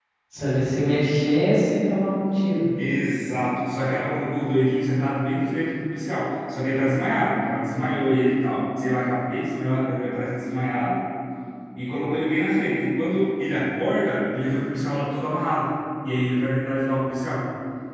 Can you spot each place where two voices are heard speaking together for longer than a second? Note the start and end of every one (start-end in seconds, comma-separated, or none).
none